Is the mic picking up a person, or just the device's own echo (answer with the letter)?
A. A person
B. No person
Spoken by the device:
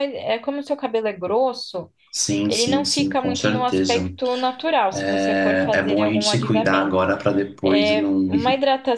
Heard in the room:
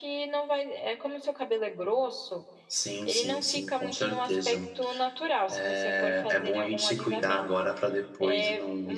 B